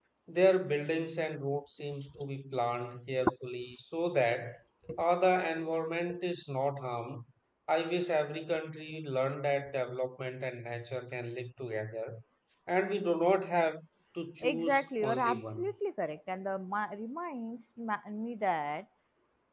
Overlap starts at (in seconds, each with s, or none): 14.4 s